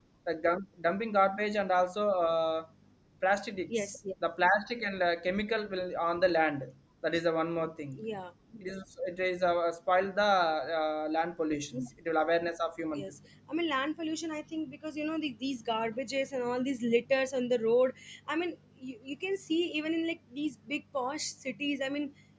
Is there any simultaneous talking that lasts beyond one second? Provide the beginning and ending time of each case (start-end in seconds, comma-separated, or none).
none